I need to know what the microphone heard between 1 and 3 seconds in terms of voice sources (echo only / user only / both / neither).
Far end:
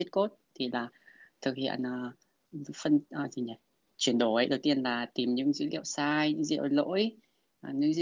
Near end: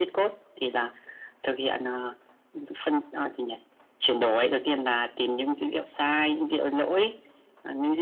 echo only